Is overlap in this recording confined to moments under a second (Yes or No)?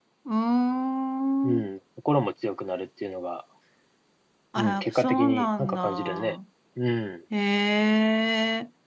No